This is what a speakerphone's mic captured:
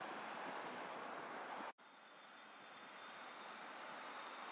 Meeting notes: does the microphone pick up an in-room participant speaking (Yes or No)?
No